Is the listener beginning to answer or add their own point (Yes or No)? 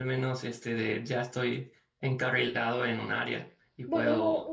Yes